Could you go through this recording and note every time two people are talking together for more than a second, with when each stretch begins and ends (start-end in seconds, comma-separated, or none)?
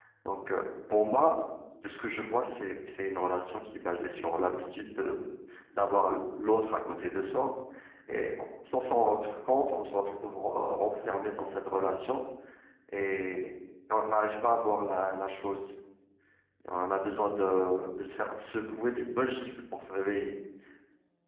none